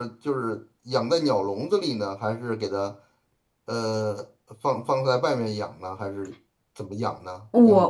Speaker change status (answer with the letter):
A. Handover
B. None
A